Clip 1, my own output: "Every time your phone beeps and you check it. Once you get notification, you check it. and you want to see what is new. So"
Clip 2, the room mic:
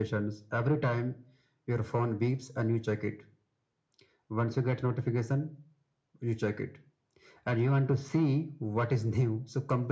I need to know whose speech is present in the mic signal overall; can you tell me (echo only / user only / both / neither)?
echo only